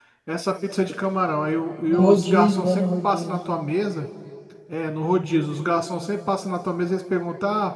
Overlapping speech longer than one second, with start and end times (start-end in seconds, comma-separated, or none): 1.8-3.4